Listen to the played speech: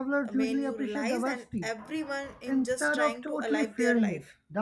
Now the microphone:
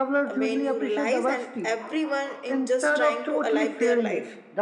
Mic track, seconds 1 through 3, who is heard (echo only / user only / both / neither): echo only